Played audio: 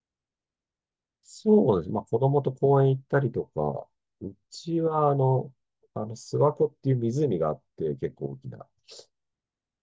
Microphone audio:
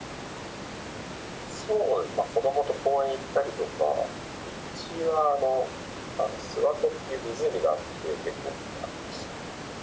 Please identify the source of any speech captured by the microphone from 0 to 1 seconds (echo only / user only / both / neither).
neither